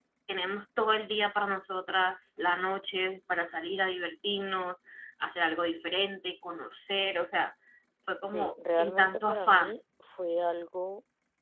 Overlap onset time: 8.3 s

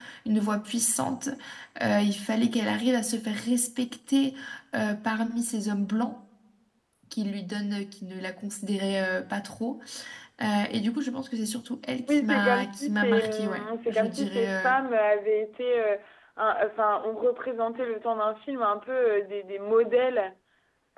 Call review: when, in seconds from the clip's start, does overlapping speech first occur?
12.1 s

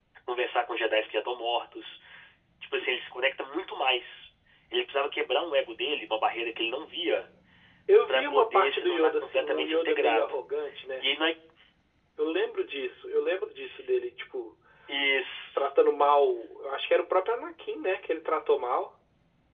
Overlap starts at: 8.1 s

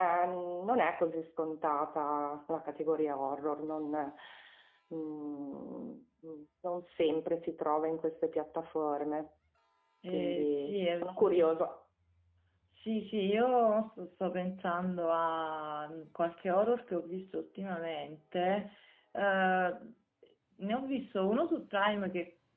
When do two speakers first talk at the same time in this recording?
10.1 s

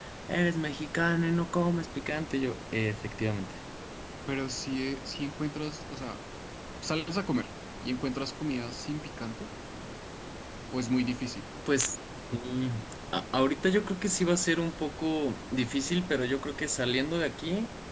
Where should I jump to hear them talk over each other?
none

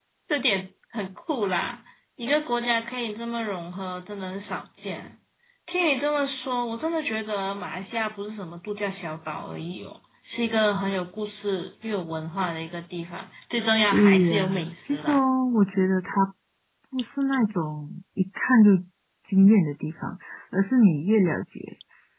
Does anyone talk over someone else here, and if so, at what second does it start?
13.9 s

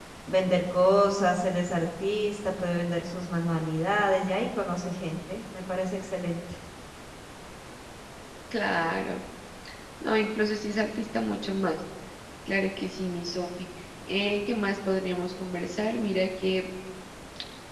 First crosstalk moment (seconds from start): none

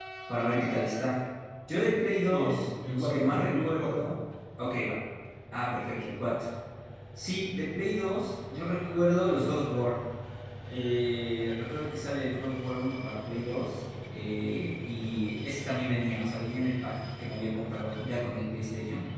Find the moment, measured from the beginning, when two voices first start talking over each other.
2.0 s

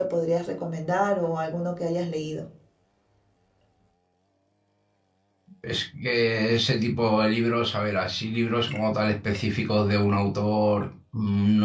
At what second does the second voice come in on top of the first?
none

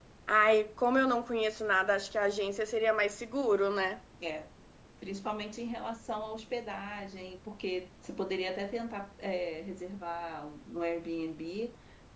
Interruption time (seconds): none

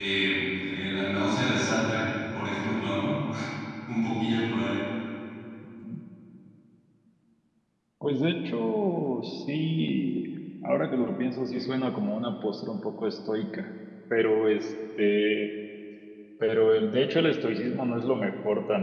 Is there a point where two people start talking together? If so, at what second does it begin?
none

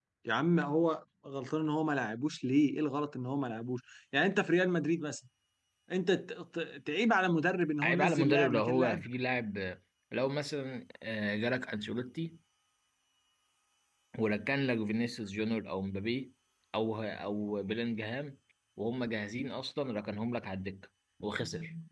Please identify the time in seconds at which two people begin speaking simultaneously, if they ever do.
7.8 s

